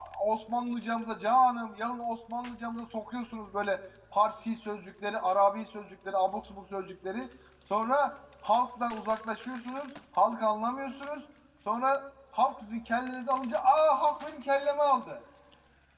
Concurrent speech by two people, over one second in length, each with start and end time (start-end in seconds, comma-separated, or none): none